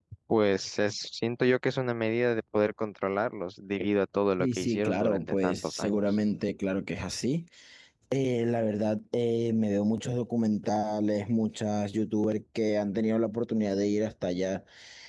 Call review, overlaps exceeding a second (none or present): present